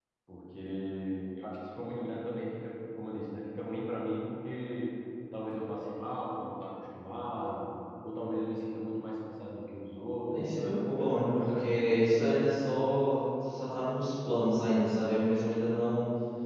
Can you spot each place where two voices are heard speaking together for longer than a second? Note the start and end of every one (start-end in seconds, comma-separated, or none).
10.3-12.0